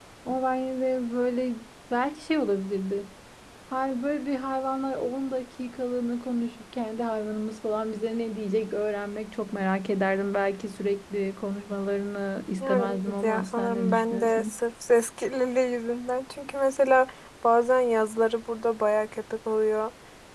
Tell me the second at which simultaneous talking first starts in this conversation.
12.6 s

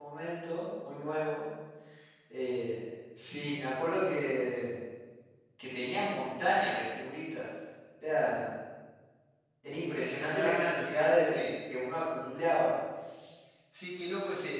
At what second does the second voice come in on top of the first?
10.3 s

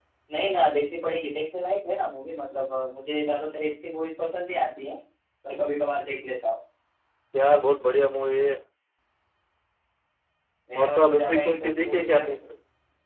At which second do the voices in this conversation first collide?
10.8 s

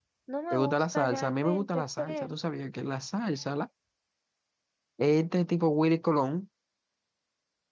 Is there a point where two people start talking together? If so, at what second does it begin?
0.5 s

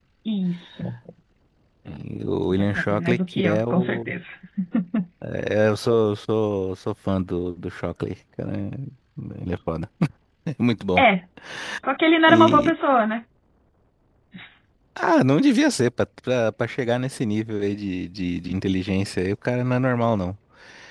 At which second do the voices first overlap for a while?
2.4 s

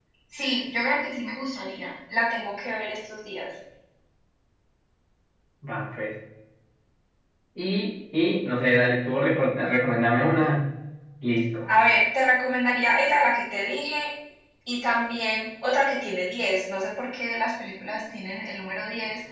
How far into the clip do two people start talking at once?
none

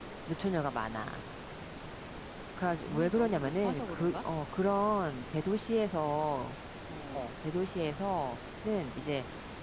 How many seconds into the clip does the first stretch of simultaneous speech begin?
2.9 s

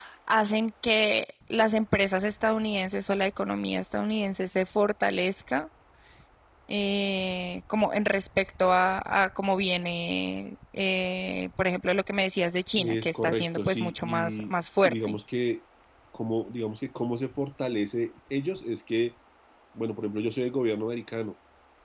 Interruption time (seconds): 12.8 s

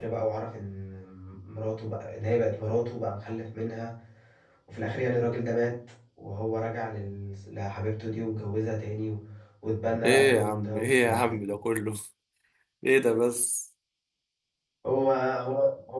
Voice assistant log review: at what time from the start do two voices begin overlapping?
10.1 s

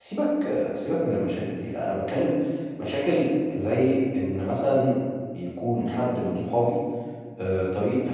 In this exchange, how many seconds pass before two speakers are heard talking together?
none

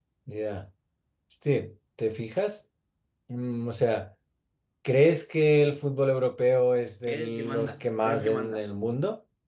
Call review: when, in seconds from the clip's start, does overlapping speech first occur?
7.0 s

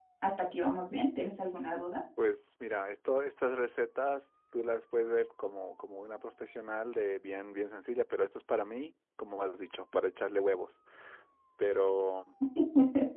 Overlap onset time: none

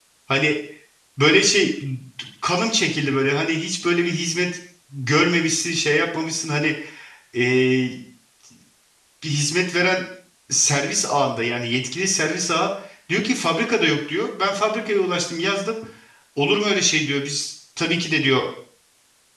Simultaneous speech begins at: none

